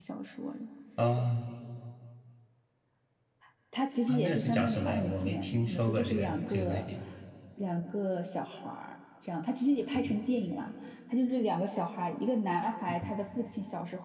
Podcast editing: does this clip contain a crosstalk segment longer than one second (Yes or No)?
Yes